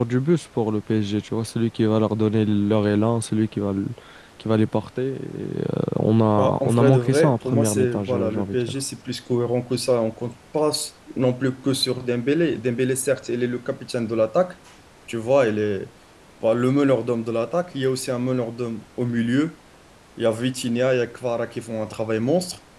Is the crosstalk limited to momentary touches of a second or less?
No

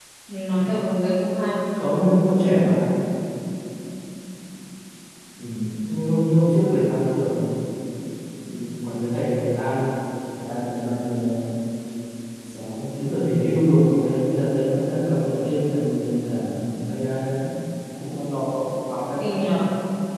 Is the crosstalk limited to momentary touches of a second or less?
Yes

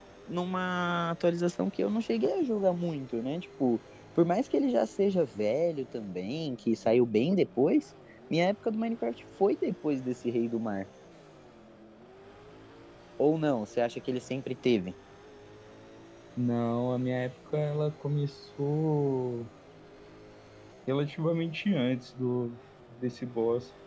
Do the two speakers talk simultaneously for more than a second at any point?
No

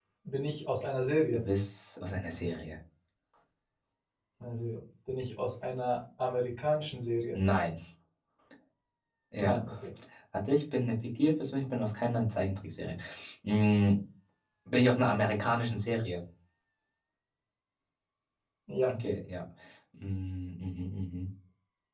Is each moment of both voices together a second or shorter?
Yes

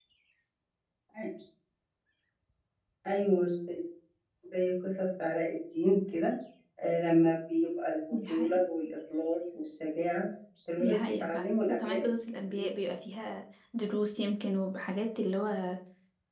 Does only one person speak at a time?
No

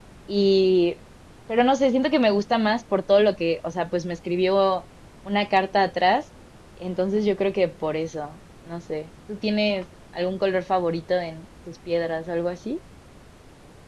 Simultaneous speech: No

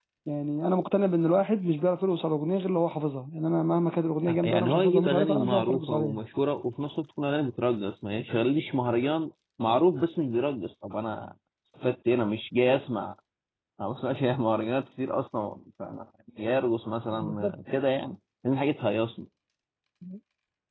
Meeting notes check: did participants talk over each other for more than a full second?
Yes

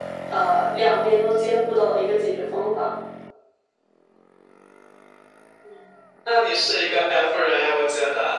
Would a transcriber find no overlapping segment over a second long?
Yes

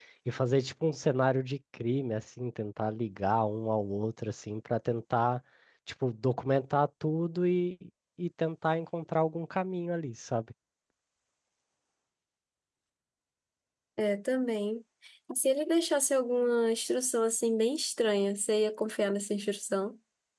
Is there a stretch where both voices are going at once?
No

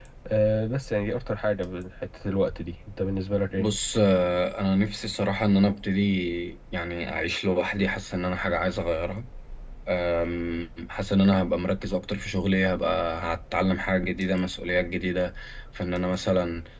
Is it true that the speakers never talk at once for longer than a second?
Yes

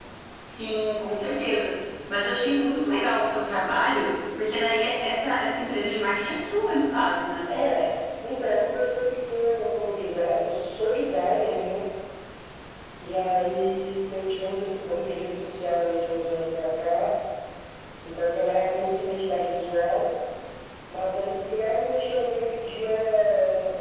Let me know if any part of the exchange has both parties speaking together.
No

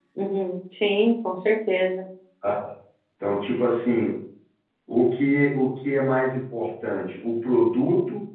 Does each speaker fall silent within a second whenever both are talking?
Yes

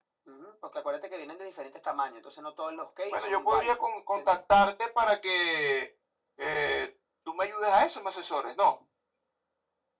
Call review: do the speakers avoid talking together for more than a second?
No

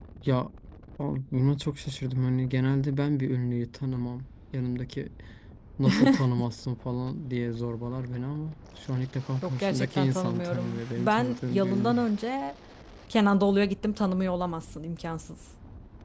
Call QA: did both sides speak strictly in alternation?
No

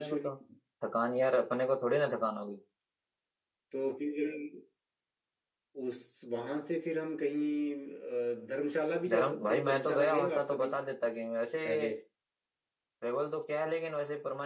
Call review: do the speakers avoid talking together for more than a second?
No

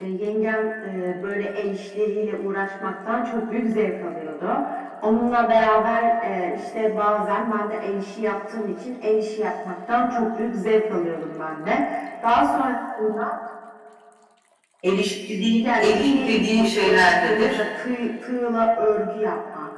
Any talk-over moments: Yes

